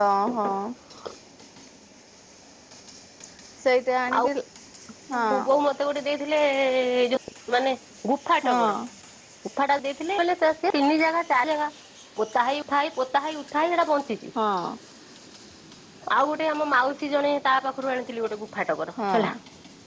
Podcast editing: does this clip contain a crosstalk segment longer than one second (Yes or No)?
No